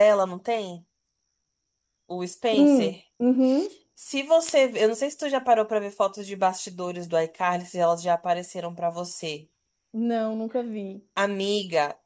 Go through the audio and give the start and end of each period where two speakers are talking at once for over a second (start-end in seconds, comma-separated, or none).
none